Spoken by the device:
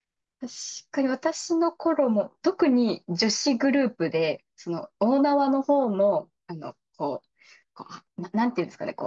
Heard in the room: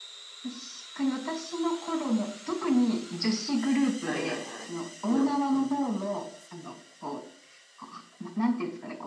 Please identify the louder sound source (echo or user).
echo